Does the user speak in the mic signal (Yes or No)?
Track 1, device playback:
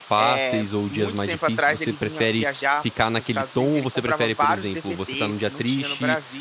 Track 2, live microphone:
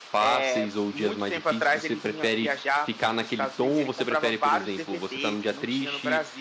No